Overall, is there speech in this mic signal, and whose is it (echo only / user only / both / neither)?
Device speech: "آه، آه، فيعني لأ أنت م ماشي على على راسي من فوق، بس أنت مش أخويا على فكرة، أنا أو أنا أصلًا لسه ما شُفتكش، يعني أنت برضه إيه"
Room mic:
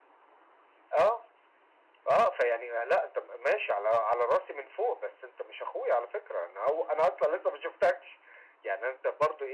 echo only